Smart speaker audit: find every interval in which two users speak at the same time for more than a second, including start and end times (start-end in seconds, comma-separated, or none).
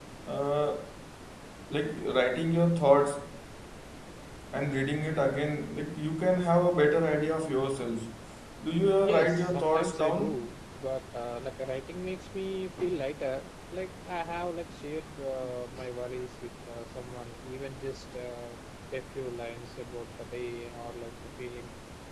9.0-10.3